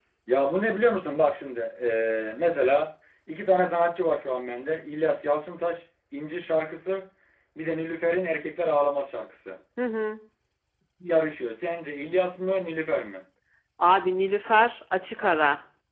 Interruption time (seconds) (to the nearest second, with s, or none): none